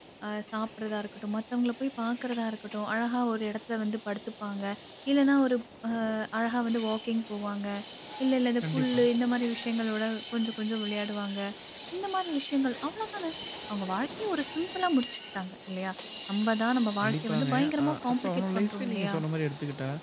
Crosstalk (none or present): present